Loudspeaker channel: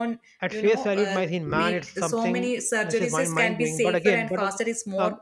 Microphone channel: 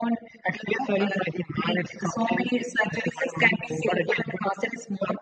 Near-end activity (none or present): none